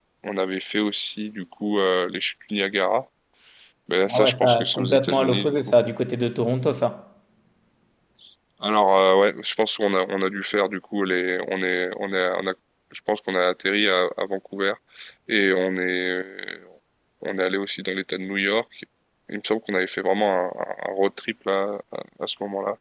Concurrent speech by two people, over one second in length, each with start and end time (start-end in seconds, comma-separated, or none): 4.1-5.6